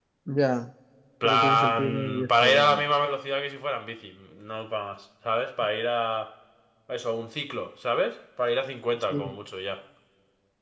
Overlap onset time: 1 s

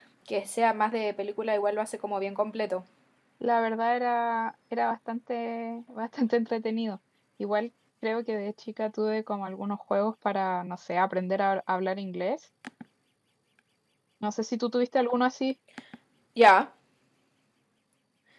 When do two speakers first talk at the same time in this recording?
none

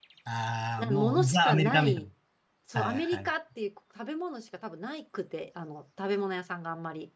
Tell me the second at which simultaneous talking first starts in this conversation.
1 s

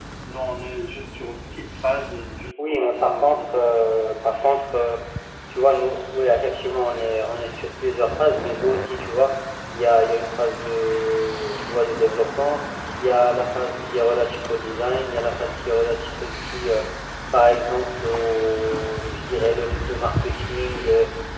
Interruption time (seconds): 3 s

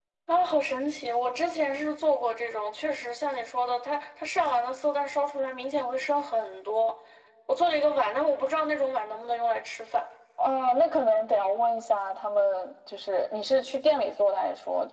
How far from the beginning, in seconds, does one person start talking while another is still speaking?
none

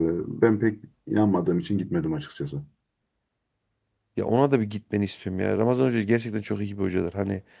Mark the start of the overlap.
none

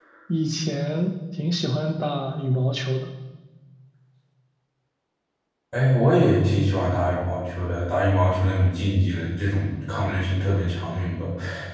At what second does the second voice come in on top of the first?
none

